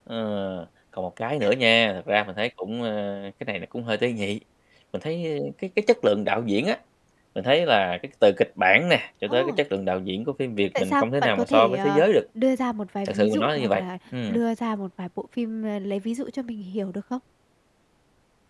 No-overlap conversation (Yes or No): No